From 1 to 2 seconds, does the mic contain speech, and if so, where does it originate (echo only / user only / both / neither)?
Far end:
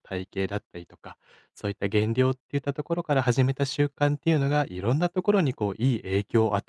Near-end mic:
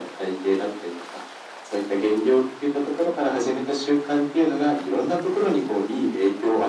echo only